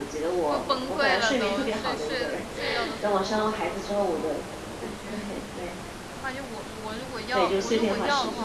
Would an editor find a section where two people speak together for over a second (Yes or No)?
Yes